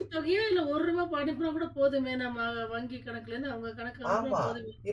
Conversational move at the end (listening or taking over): taking over